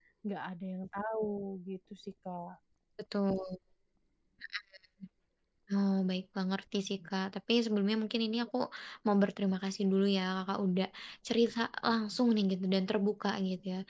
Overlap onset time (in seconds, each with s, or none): none